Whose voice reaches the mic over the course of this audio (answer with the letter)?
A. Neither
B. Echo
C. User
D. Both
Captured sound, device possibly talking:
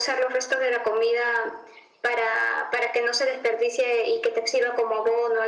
B